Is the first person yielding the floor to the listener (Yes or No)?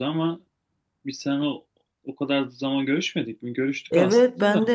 Yes